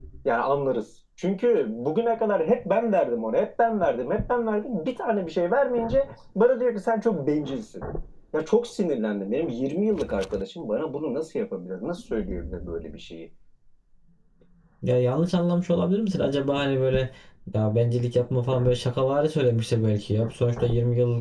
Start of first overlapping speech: none

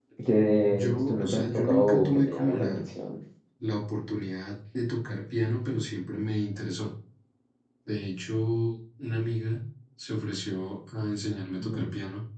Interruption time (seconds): 1 s

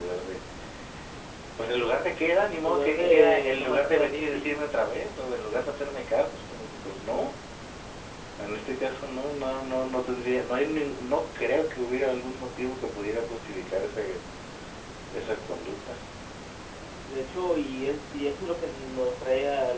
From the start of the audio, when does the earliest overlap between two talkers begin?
3 s

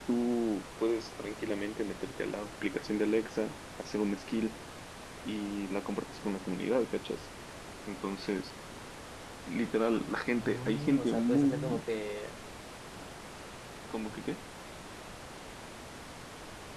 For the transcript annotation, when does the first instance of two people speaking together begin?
10 s

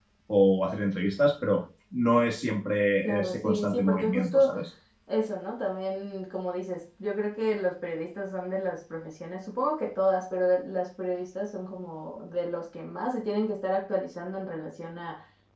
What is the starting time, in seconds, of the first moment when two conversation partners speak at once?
3 s

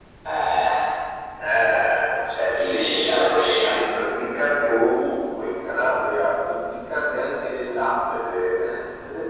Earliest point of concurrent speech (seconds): 3 s

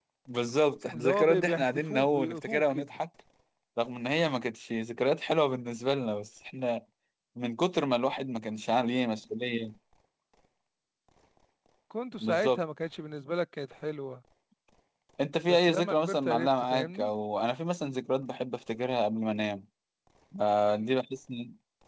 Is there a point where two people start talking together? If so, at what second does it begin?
1 s

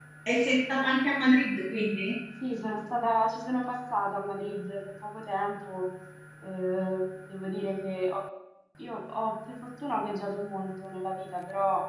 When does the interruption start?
none

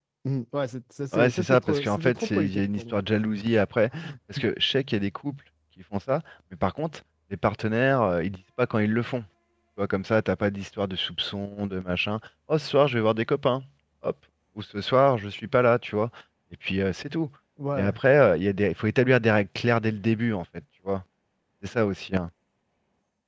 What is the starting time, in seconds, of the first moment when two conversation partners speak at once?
1 s

